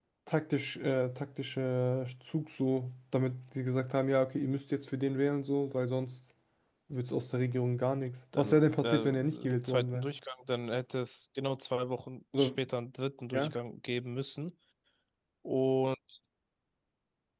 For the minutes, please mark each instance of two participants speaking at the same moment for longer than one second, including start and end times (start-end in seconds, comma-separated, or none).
8.4-10.1